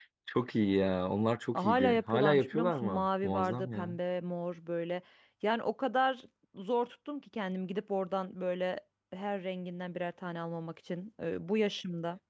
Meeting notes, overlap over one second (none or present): present